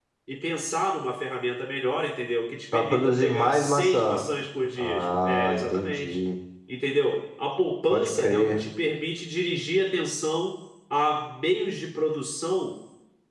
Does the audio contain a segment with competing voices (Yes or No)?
Yes